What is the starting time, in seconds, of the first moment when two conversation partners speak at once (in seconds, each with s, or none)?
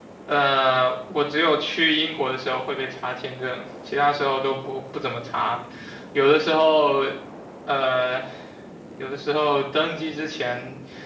none